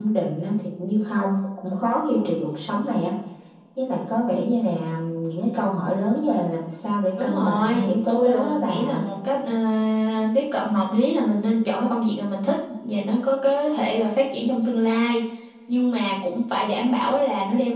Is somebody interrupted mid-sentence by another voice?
Yes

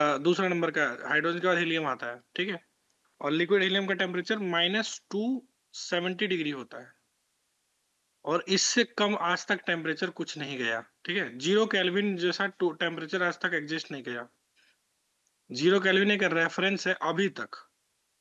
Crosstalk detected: No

